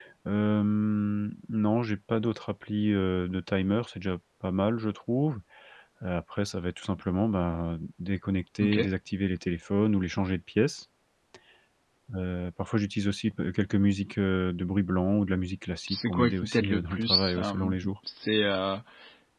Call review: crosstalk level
present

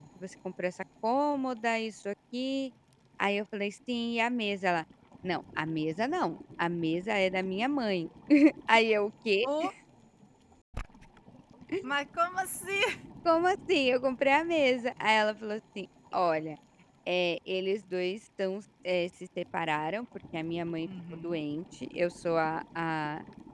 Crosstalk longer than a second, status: none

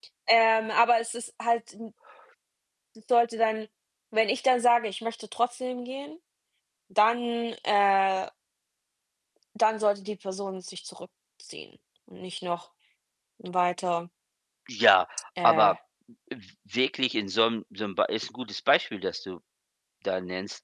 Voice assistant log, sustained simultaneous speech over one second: none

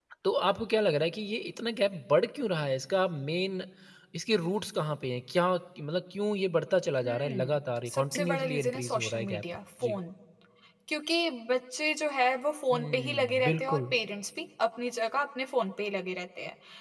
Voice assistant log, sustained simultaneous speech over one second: present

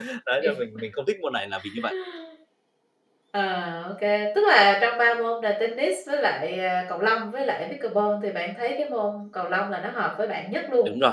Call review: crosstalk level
none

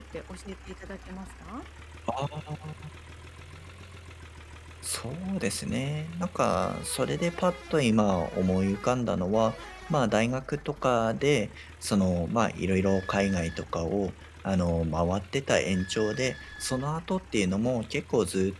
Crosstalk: none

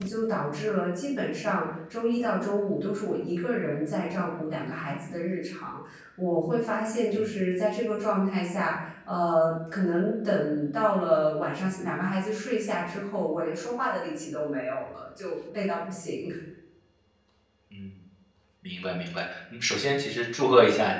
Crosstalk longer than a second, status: none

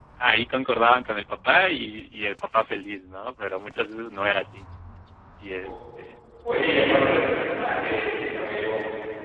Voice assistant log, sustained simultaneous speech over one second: none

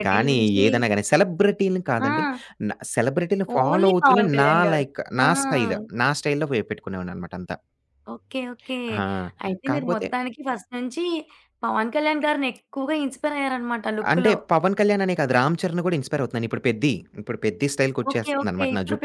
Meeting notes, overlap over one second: present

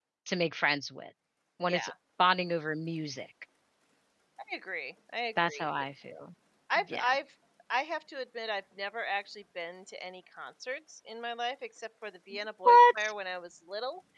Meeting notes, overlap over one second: none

